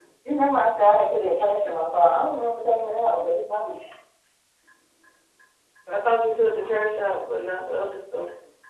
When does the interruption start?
none

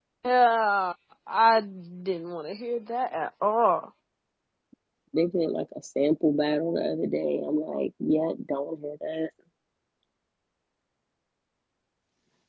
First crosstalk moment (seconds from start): none

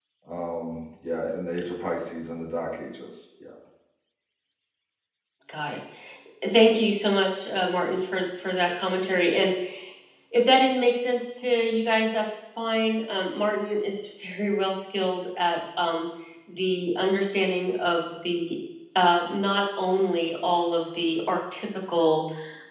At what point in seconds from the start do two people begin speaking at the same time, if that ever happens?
none

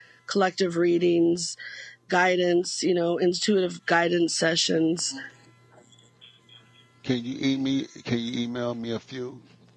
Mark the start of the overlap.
none

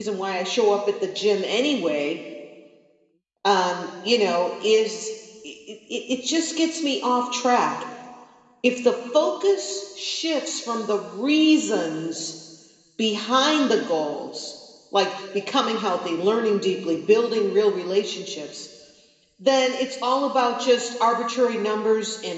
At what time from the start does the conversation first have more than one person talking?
none

